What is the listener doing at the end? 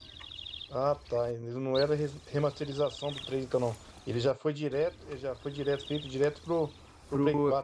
taking over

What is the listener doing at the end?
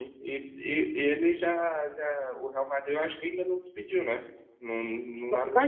taking over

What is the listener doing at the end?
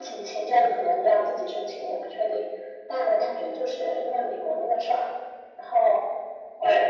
listening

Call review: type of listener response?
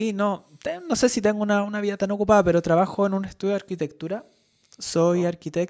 listening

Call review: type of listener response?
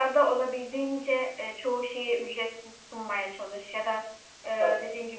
listening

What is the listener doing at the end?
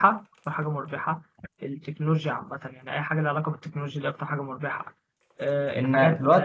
taking over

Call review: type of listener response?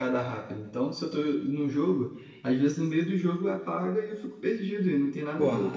taking over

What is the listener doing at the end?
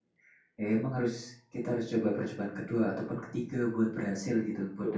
taking over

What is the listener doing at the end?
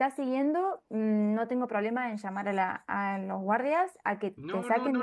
taking over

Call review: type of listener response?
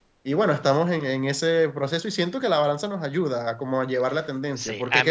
taking over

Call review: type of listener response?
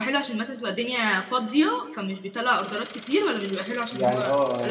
taking over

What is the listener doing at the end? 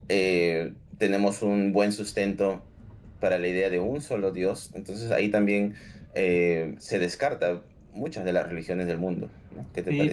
taking over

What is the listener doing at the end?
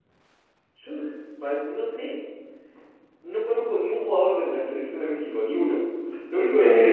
listening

